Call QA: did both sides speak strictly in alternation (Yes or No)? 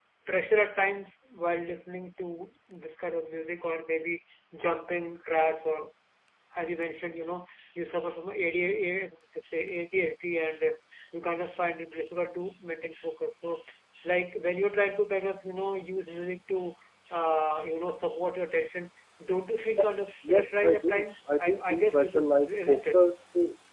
No